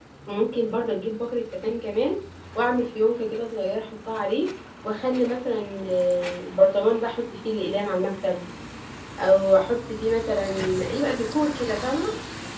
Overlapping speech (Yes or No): No